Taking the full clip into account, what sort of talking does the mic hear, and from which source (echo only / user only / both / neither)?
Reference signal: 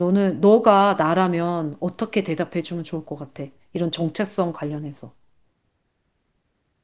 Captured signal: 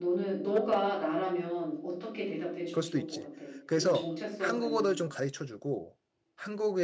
both